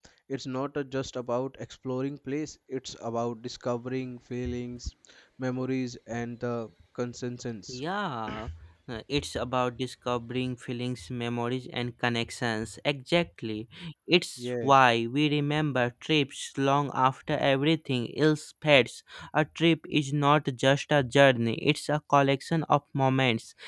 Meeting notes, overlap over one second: none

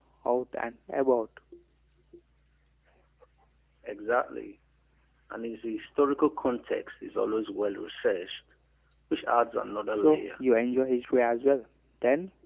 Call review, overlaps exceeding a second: none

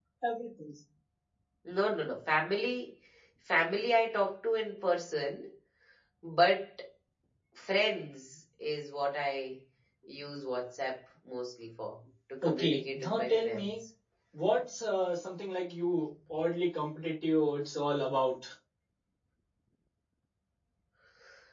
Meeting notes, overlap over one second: present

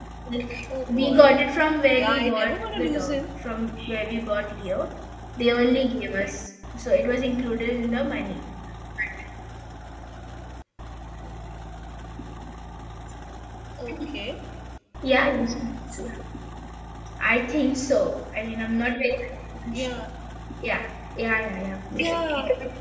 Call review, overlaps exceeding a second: present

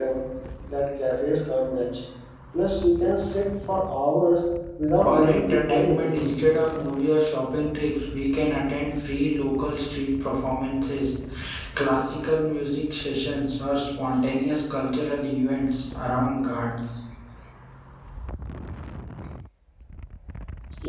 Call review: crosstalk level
present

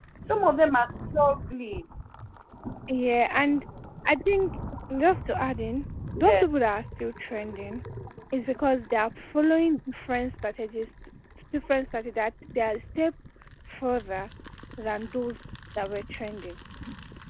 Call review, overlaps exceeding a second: none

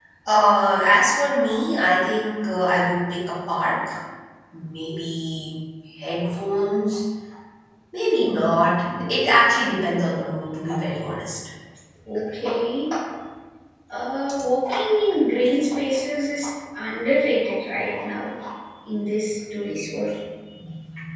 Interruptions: none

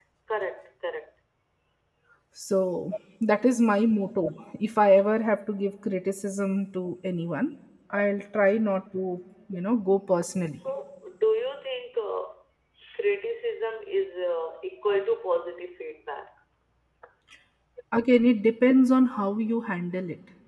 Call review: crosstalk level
none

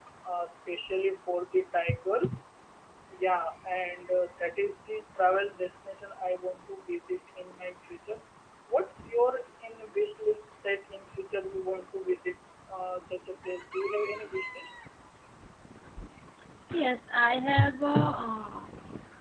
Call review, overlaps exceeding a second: none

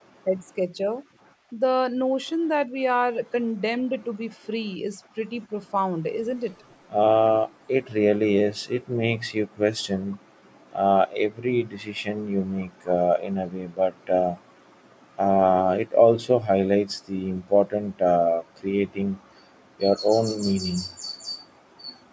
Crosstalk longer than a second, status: none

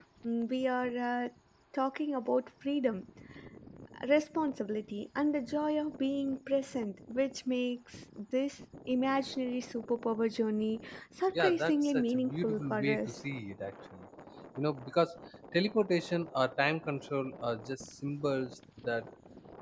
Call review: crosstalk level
present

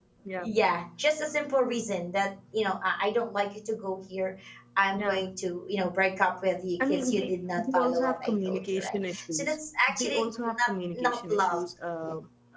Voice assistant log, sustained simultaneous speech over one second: present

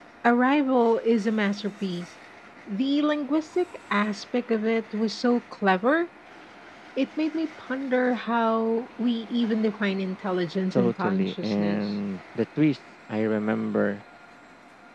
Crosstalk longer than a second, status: present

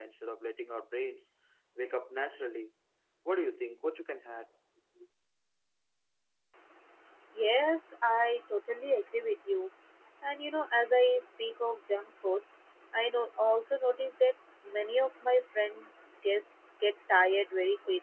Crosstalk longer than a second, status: none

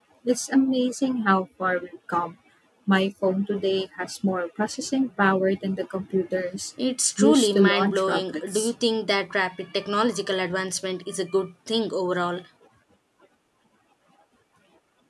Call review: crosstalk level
present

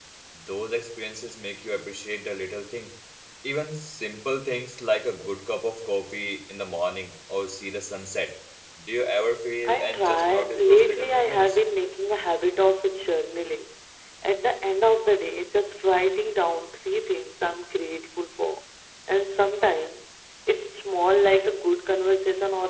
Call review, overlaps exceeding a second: present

